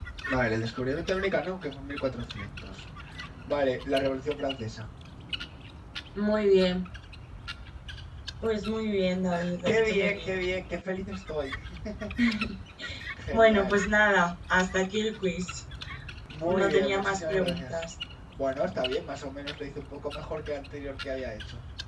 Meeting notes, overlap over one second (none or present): present